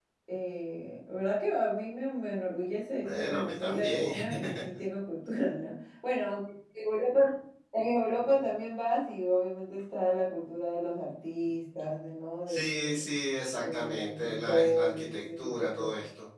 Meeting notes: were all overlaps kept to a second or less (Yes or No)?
No